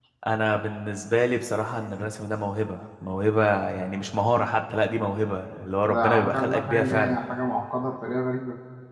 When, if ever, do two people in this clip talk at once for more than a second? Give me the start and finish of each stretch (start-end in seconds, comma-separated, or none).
5.9-7.2